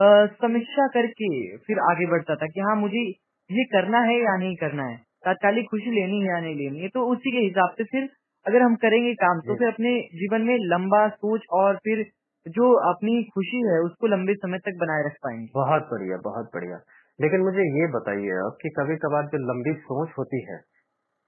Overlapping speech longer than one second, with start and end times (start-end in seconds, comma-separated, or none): none